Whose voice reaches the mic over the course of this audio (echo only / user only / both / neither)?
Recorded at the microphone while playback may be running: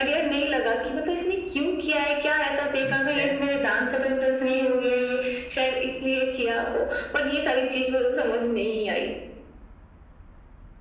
both